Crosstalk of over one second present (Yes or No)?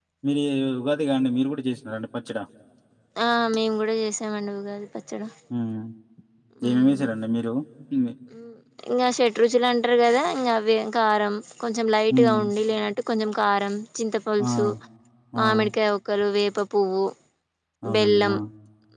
No